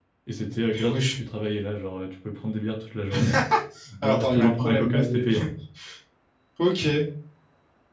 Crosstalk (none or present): present